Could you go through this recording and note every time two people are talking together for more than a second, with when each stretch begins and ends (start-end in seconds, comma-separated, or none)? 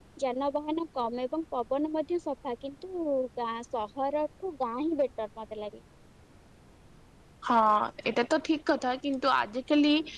none